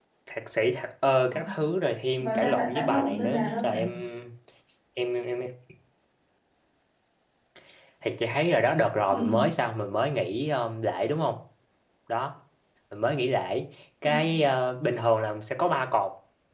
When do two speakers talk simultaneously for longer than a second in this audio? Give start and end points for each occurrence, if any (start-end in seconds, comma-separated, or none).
2.2-3.8